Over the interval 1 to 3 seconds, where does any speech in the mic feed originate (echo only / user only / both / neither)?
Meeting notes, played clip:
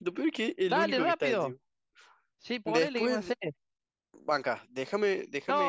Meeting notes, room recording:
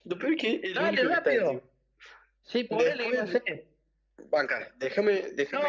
echo only